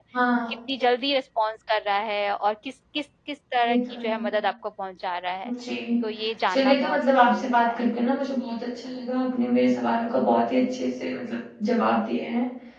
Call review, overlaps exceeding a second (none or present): present